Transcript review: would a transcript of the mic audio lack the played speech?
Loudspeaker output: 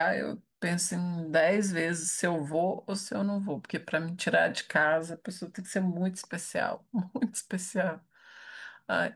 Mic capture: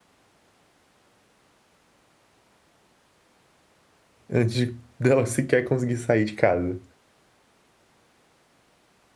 Yes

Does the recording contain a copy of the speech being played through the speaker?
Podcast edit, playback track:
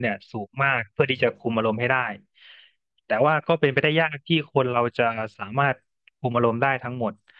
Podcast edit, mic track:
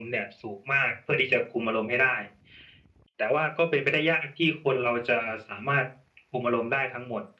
Yes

